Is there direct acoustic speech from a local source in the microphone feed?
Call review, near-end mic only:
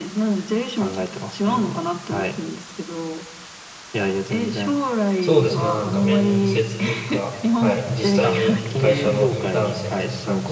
Yes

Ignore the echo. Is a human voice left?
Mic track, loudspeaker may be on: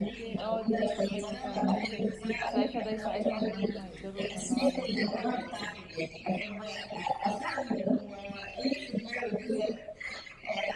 Yes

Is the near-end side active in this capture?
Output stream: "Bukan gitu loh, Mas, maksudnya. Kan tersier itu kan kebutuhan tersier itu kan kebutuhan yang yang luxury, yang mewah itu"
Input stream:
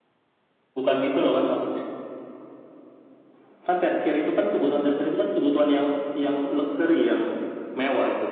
No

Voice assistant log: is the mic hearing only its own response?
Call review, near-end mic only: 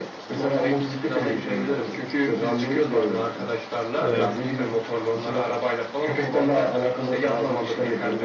No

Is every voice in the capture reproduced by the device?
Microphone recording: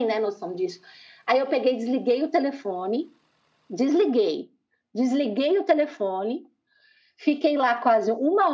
Yes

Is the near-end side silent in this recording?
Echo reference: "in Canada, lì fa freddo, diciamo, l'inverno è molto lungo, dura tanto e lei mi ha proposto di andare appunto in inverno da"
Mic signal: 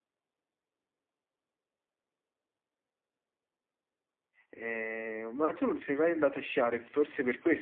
No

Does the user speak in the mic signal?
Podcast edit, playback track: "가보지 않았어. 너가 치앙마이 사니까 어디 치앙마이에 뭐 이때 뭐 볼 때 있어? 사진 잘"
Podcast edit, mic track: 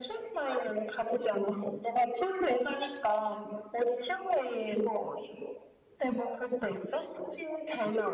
No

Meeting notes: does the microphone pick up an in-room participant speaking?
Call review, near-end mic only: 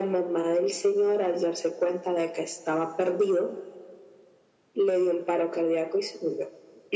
No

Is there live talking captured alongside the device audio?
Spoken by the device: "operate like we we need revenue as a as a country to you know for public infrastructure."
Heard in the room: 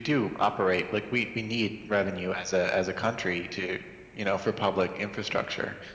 No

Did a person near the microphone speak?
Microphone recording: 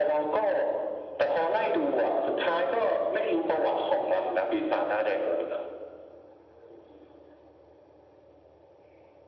No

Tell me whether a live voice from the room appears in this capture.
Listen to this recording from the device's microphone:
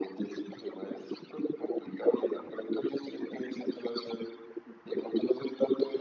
No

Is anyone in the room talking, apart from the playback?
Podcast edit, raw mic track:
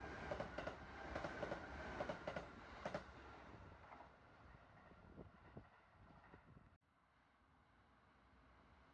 No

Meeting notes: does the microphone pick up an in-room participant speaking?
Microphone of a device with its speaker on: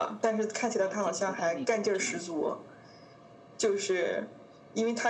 Yes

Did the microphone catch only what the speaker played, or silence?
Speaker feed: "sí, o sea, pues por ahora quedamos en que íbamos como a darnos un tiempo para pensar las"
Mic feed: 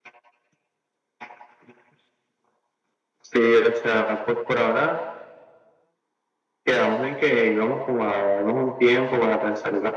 Yes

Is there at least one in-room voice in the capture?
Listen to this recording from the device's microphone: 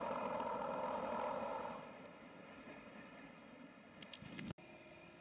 No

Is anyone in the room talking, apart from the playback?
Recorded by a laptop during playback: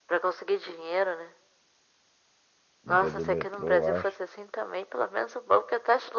Yes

